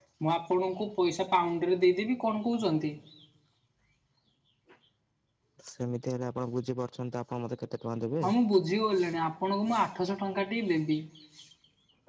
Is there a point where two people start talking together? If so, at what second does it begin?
none

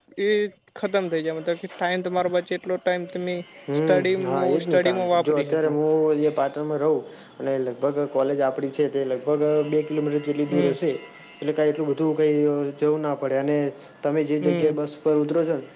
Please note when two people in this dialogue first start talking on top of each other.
4 s

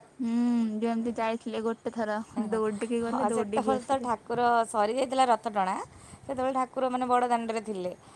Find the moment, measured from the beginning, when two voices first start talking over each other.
3 s

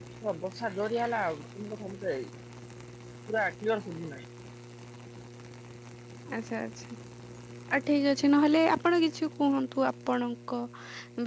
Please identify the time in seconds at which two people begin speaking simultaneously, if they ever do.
none

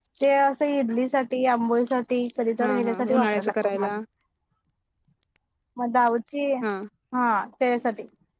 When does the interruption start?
3 s

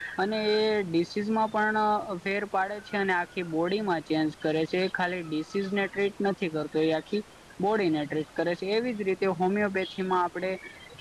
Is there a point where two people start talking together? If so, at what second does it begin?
none

